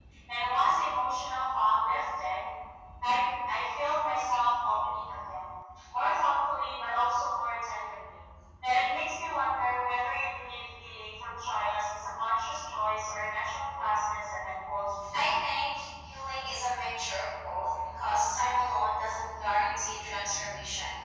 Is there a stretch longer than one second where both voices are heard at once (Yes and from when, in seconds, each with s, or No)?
No